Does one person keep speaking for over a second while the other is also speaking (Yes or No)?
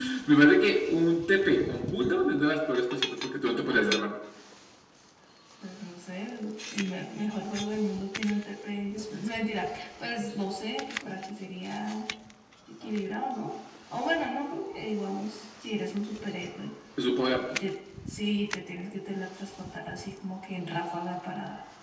No